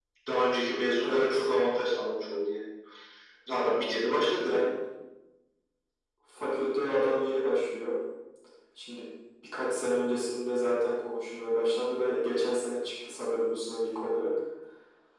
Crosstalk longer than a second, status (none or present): none